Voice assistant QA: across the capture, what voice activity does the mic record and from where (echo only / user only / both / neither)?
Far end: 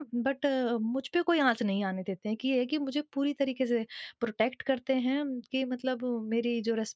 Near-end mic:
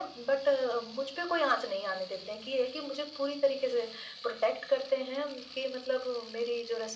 echo only